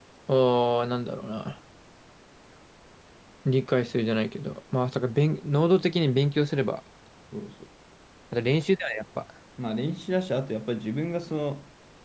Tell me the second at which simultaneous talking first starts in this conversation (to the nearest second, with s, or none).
none